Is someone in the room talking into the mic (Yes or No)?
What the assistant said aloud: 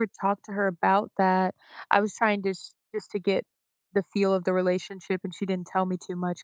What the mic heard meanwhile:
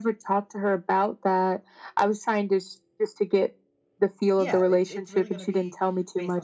Yes